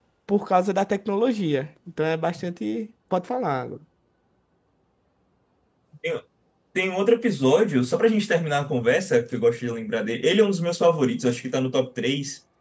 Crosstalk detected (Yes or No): No